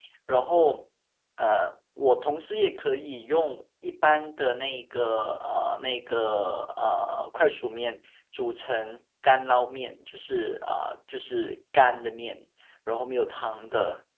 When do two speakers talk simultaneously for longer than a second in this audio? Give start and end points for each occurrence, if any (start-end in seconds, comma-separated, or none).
none